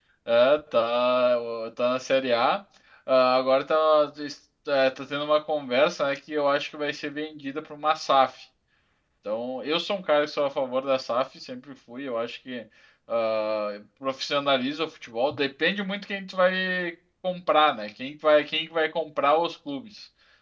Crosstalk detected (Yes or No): No